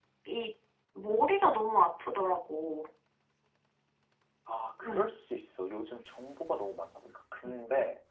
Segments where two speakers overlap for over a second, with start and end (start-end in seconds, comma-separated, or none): none